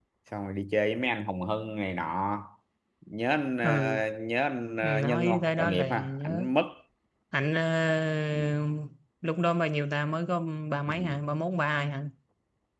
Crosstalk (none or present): present